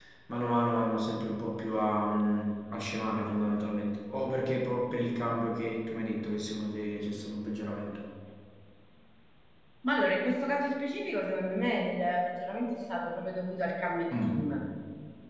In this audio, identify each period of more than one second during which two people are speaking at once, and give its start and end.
none

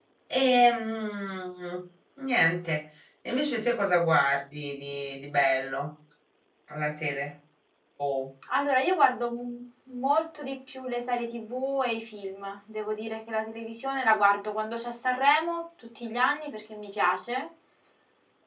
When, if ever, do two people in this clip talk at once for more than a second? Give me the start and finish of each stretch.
none

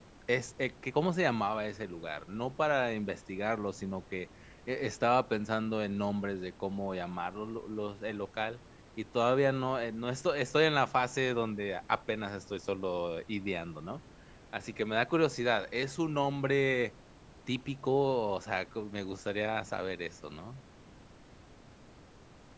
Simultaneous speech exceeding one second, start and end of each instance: none

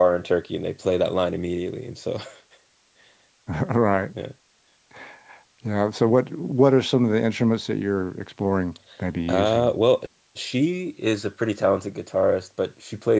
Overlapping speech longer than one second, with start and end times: none

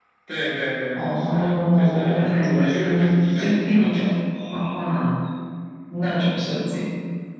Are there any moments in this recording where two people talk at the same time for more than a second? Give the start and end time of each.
0.9-3.9

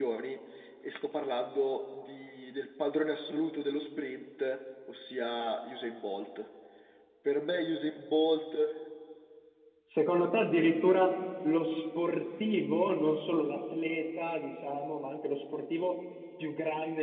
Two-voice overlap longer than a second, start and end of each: none

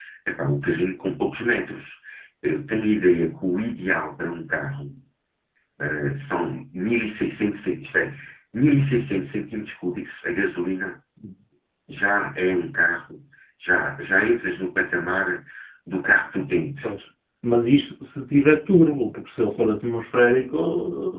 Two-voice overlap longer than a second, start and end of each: none

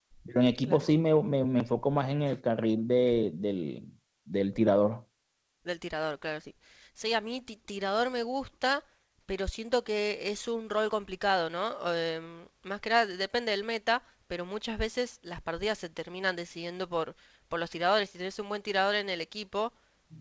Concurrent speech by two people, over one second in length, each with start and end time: none

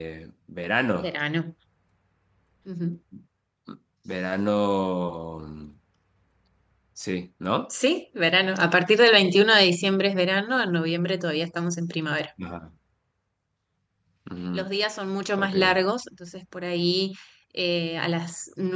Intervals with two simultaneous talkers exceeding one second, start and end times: none

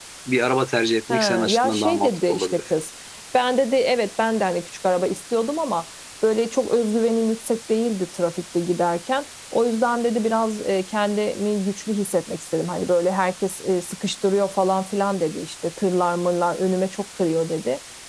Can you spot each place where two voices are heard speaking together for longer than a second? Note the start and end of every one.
1.1-2.6

